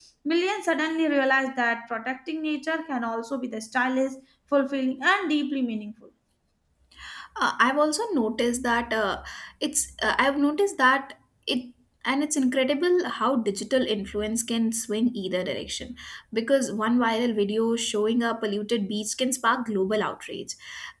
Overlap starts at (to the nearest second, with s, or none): none